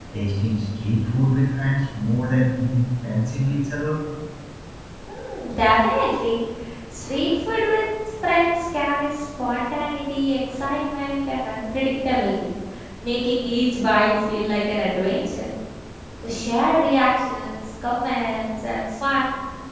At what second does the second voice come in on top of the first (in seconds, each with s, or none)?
none